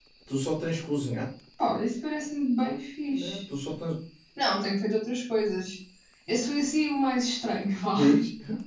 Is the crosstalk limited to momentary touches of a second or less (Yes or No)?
Yes